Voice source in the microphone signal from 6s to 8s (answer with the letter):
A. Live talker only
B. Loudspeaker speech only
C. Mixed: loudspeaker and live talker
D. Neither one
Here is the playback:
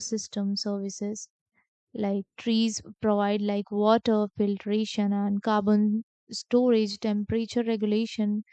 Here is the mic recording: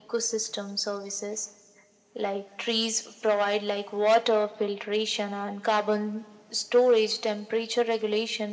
B